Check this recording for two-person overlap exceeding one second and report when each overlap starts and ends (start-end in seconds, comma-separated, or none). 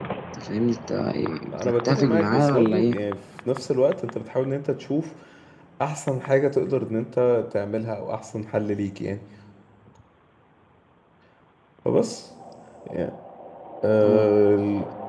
1.5-2.9